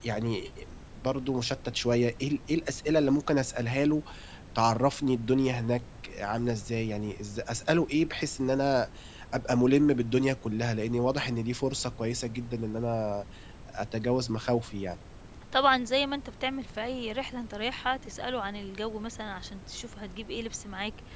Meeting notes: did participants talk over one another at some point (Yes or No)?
No